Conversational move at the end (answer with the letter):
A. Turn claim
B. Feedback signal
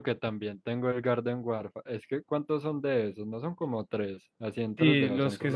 A